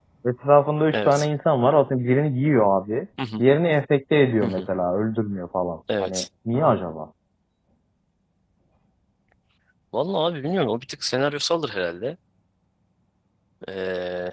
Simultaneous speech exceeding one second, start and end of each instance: none

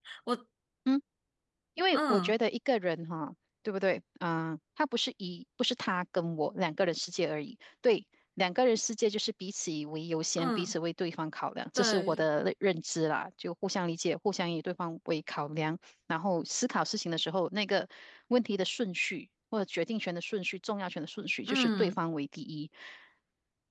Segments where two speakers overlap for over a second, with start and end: none

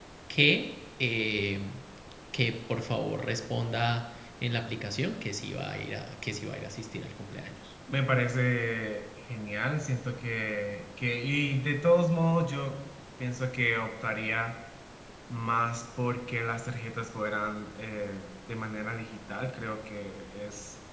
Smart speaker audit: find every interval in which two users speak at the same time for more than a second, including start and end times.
none

